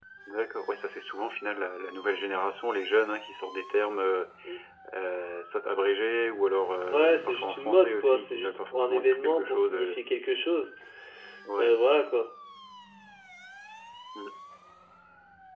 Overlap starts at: 6.9 s

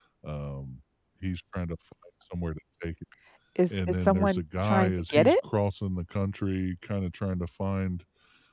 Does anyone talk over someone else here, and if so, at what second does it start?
3.7 s

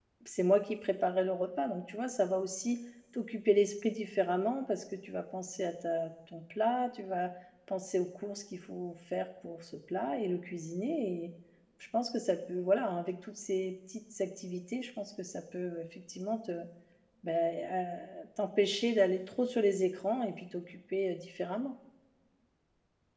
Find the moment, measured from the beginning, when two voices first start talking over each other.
none

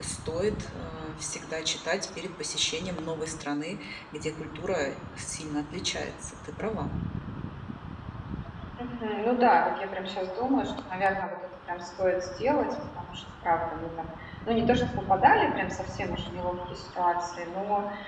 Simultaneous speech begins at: none

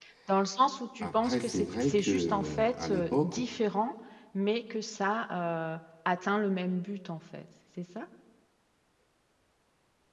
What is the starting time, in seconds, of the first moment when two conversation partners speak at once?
1.0 s

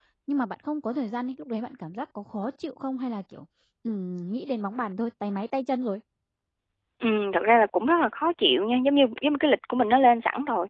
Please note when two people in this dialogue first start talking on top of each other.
none

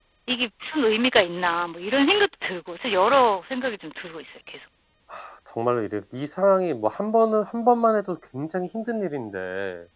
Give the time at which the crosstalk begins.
none

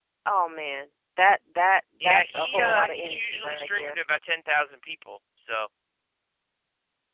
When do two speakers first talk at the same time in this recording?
2.0 s

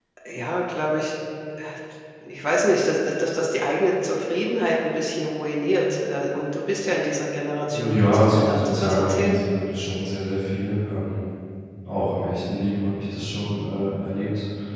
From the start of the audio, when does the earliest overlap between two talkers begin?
7.7 s

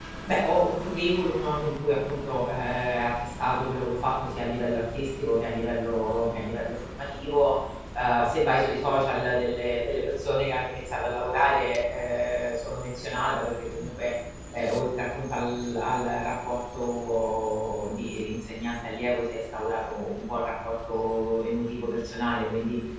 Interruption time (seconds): none

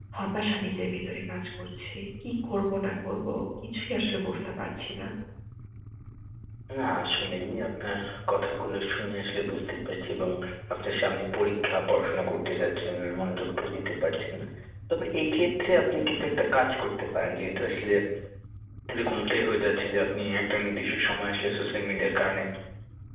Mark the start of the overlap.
none

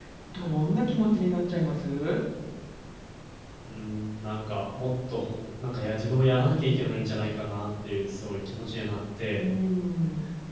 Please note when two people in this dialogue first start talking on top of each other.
none

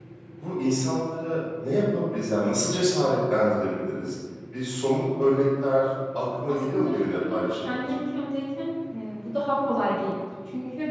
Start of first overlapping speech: 6.5 s

